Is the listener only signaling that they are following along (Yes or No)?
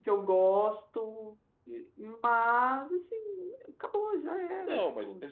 No